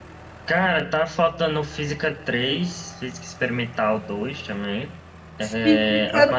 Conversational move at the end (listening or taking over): taking over